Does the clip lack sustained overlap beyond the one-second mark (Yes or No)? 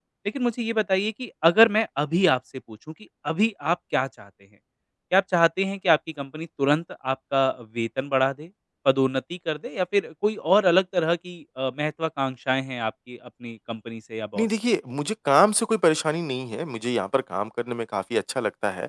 Yes